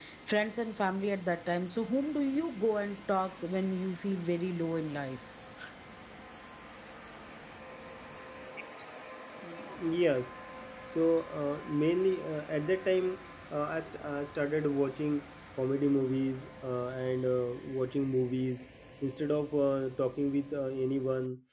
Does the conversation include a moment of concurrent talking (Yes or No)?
No